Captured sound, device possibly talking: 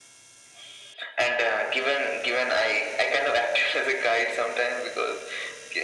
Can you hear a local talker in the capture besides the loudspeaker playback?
No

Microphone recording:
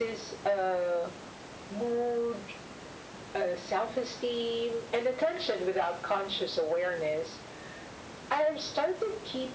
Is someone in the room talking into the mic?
No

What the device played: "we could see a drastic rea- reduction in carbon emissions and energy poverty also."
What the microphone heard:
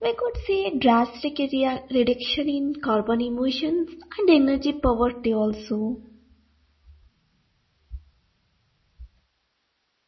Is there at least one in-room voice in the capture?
No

